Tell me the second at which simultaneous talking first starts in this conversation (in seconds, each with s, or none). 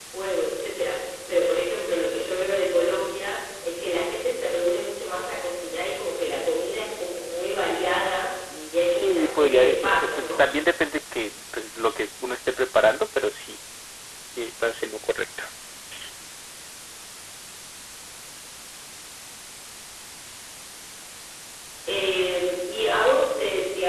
8.5 s